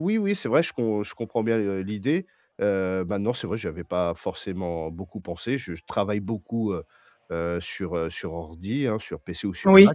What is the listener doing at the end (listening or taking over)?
listening